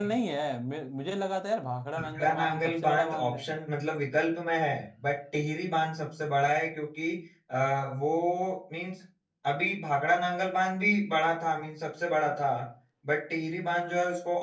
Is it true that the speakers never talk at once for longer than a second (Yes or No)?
No